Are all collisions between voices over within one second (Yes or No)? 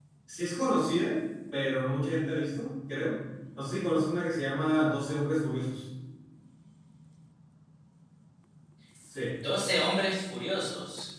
Yes